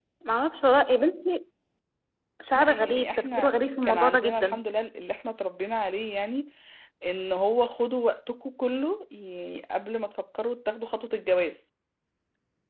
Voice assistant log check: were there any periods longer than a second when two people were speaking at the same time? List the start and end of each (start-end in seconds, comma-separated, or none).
2.5-4.6